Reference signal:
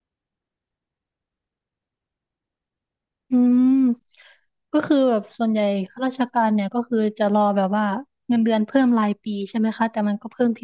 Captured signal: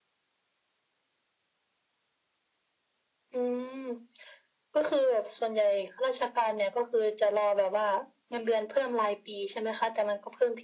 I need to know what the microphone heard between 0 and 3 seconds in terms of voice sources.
neither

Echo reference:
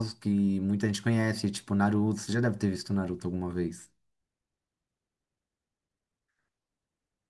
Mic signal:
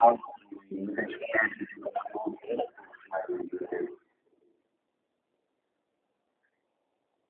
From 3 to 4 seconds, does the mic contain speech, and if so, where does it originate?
echo only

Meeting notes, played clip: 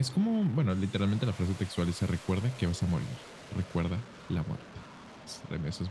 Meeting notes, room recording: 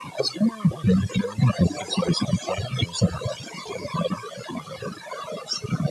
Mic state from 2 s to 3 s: echo only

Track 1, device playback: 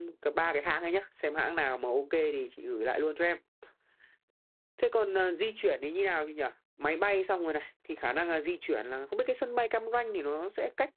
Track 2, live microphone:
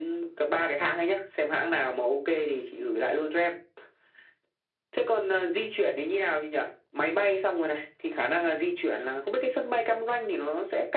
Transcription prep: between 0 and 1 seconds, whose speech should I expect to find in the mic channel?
echo only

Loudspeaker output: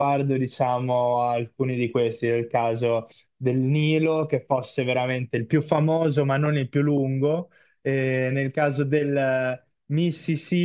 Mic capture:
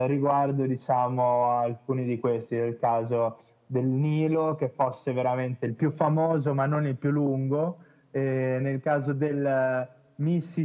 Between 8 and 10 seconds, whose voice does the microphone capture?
echo only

